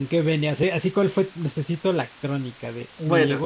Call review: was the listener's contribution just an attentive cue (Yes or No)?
Yes